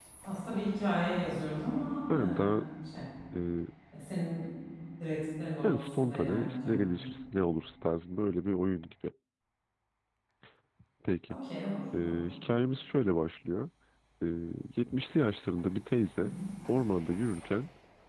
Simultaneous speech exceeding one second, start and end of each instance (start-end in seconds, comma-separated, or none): 5.6-7.0